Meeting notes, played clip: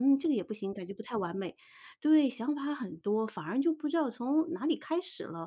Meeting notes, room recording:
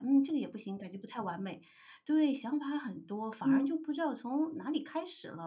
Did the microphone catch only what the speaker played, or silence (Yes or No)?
No